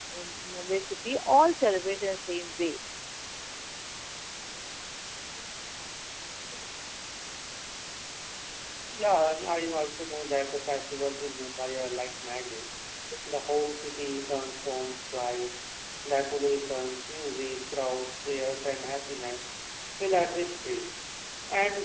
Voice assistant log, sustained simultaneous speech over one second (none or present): none